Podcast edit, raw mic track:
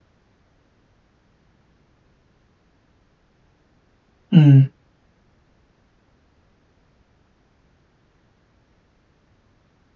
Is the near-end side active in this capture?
Yes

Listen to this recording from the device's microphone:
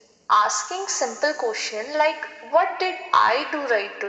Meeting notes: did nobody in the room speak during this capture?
Yes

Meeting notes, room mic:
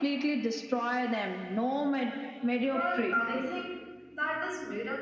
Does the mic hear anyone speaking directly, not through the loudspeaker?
Yes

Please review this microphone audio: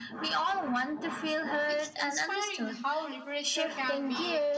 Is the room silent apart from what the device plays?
No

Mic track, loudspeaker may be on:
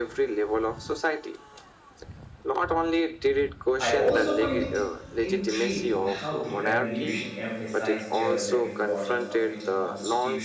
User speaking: Yes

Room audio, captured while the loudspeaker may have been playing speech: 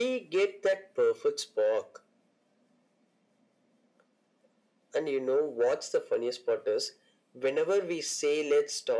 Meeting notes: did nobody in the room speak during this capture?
Yes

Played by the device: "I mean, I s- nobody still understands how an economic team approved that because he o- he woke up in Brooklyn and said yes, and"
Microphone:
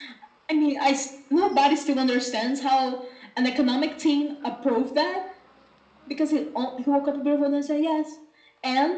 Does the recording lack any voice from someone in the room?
Yes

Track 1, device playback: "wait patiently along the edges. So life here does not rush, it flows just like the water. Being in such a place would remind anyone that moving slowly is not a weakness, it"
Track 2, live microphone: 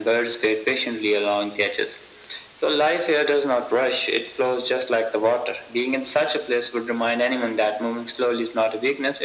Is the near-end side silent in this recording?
Yes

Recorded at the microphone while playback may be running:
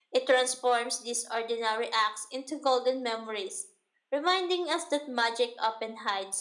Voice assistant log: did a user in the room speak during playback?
No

